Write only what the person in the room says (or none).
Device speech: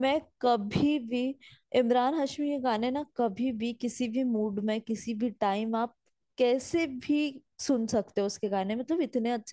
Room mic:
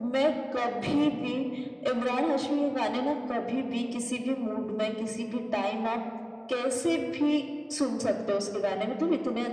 none